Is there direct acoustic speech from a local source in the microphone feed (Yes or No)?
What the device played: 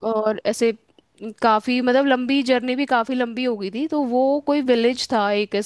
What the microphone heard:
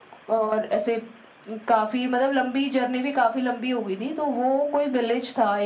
No